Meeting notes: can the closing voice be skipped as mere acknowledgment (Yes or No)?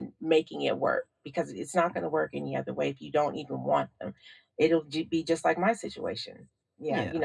No